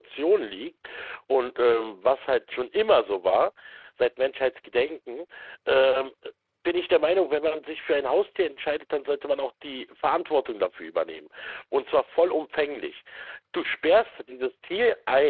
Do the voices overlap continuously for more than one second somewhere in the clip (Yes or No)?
No